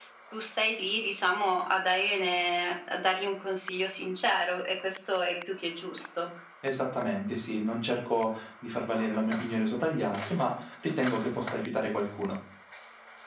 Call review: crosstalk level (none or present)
none